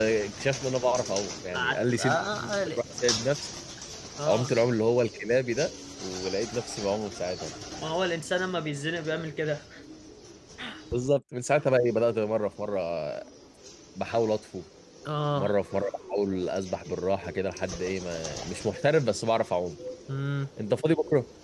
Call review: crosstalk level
present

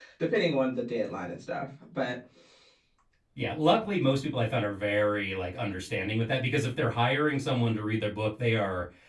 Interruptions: none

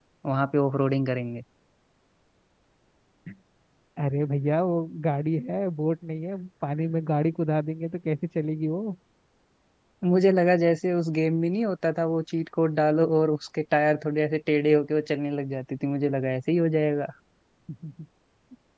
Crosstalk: none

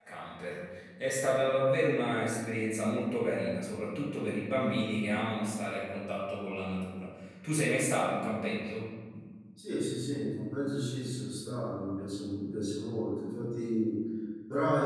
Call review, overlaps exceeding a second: none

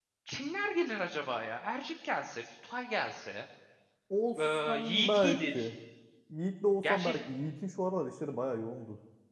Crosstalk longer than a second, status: present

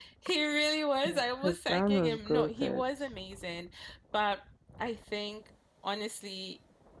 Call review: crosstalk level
present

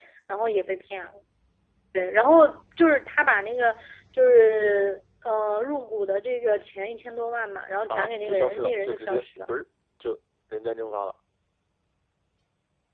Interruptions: present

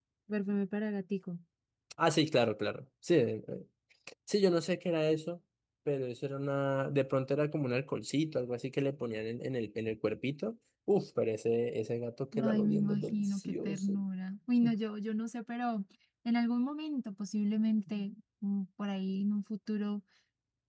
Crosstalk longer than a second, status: present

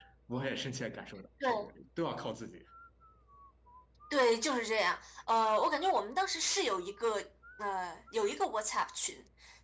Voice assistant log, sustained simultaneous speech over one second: none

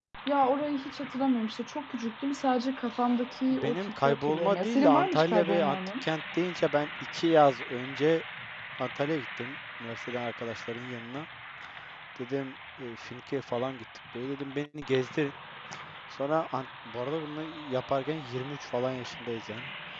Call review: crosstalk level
present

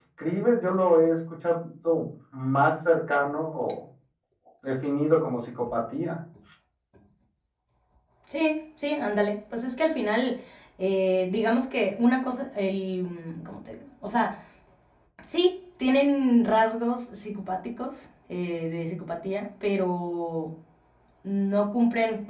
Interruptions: none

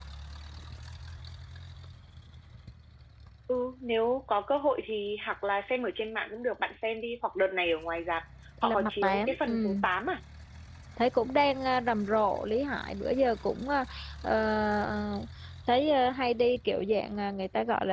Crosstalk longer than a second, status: present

